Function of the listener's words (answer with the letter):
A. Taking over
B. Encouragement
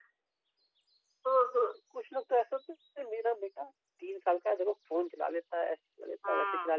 B